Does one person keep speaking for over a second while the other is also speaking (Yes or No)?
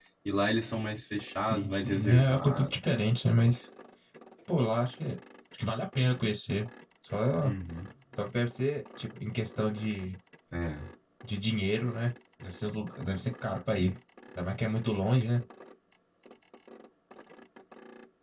Yes